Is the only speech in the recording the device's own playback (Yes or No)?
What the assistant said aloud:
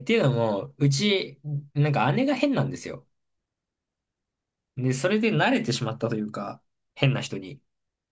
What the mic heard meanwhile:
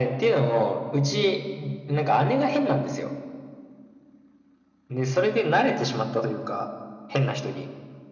Yes